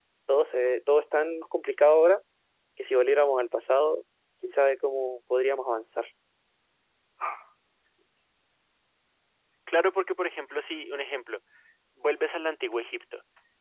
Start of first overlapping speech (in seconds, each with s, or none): none